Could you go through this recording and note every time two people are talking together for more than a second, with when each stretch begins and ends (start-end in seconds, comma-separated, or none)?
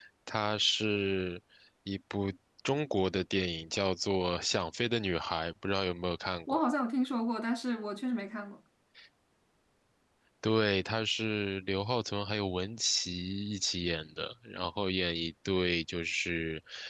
none